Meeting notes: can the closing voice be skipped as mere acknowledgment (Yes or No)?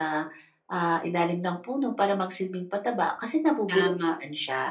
No